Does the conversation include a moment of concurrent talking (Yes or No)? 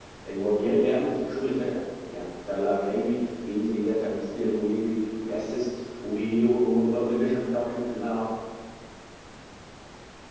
No